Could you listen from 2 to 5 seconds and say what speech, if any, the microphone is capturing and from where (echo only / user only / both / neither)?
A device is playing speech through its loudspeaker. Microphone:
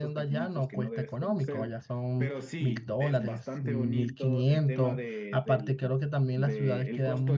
both